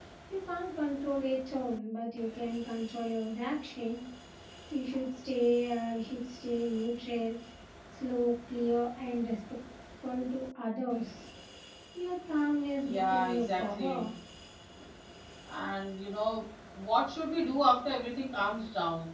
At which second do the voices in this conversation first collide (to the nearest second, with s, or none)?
13 s